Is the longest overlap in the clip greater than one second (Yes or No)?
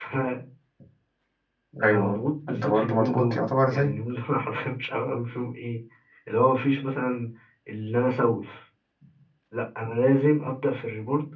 Yes